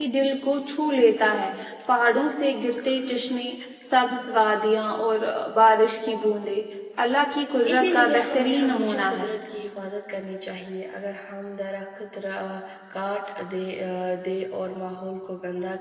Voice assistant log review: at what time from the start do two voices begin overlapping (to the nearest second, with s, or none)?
8 s